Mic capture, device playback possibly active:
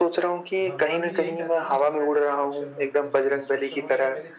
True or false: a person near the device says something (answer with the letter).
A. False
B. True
B